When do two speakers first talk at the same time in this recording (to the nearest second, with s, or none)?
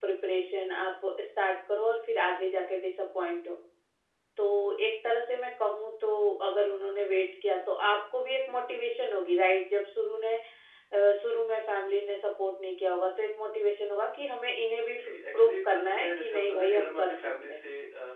15 s